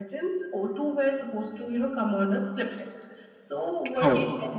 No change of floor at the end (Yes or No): Yes